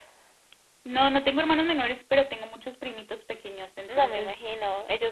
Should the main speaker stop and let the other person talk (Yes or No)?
Yes